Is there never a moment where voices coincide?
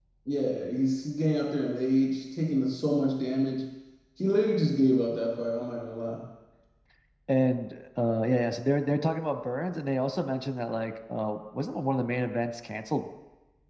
Yes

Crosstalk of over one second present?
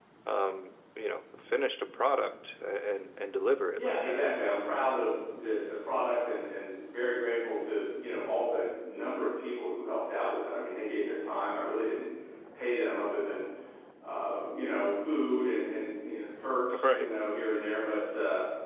No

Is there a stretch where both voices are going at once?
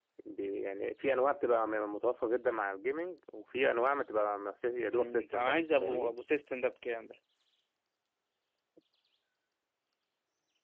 Yes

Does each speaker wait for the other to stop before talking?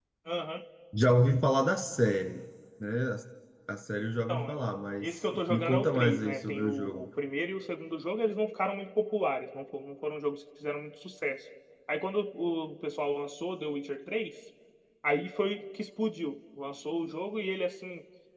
No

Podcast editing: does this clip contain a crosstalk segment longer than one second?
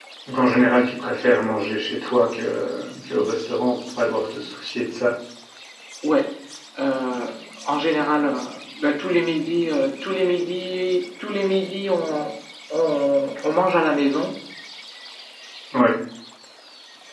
No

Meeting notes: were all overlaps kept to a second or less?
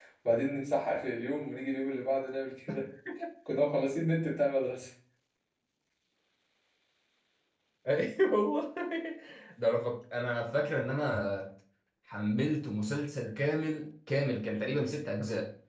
Yes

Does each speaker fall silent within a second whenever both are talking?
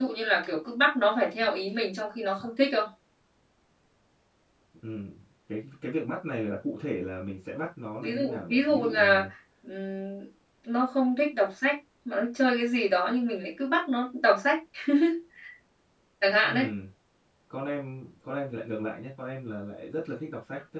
No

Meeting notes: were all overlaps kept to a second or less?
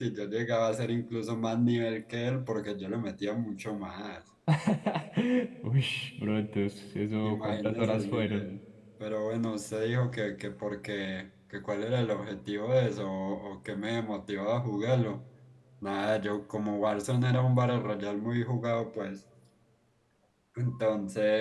No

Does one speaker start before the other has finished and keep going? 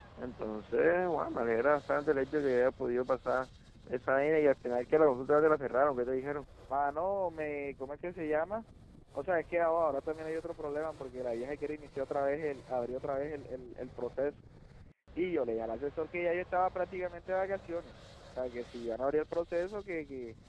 No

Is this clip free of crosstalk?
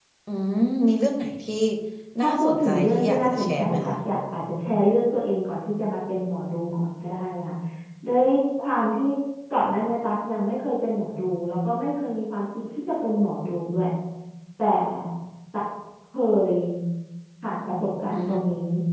No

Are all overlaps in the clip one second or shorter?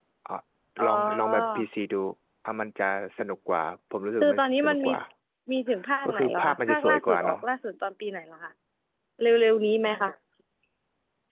No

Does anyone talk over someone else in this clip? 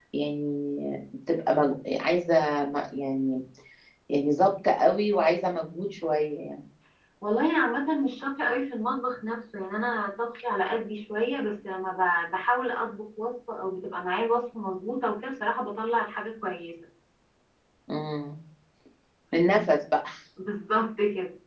No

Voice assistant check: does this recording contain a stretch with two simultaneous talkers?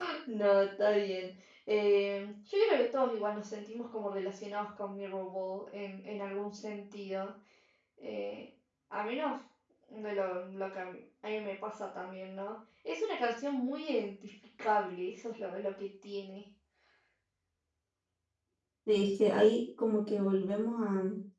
No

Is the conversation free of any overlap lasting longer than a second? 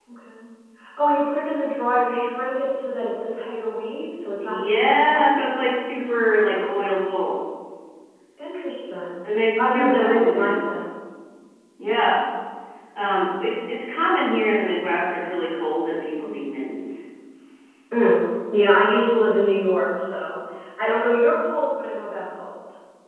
No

